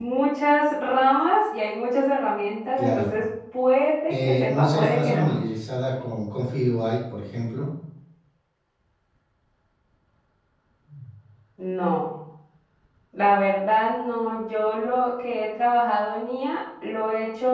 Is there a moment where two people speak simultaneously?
Yes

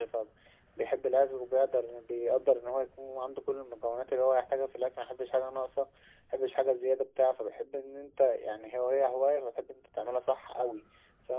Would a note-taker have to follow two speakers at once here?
No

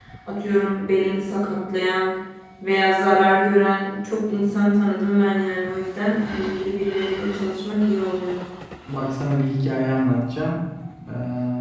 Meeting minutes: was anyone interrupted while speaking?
No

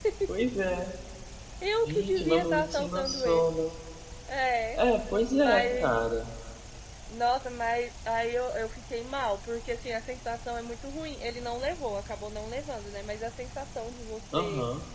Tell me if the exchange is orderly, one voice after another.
No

